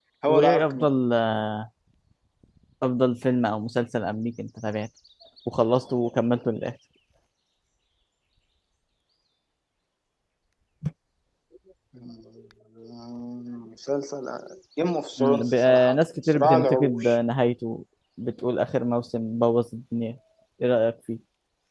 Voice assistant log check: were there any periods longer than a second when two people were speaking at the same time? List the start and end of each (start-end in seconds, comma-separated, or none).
15.2-17.2